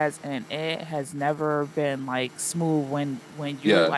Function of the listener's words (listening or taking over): listening